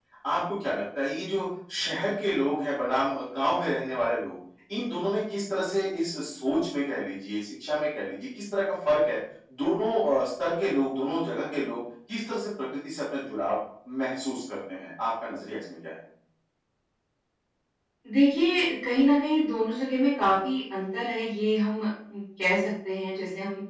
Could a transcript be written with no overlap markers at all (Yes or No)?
Yes